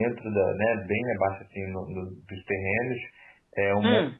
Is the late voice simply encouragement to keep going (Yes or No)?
Yes